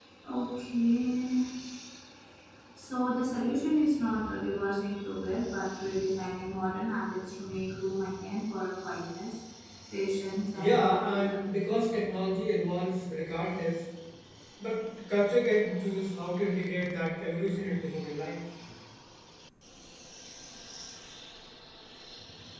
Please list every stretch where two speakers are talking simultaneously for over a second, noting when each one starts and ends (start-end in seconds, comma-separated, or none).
10.5-12.1